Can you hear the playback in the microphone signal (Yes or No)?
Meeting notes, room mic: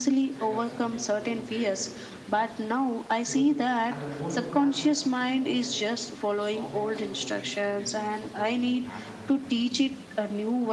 Yes